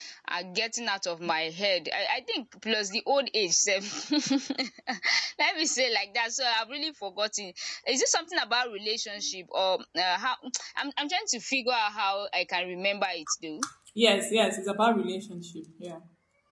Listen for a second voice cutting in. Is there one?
No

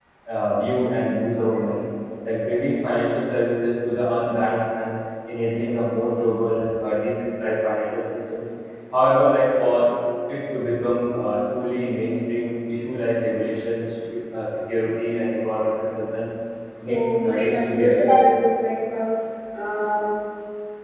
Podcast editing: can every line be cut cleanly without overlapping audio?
No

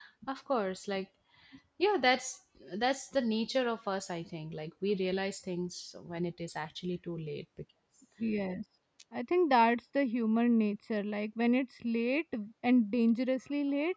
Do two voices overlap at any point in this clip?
No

